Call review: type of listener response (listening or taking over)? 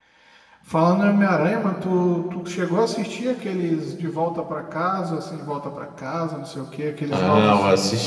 taking over